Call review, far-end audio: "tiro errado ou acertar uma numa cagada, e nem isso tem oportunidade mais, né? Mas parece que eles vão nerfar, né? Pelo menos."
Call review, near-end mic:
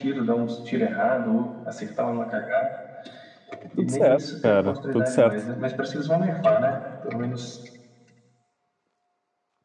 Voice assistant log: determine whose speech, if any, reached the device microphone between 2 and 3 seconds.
echo only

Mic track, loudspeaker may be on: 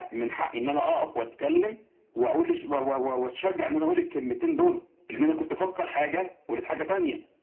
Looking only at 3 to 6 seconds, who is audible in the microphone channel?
echo only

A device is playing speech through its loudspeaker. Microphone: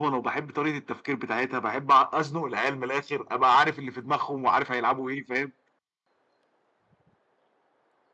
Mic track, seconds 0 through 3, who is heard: echo only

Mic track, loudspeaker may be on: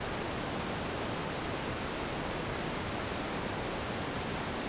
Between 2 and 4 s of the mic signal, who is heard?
neither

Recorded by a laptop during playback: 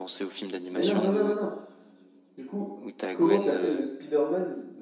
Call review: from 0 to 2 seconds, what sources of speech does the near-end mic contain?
both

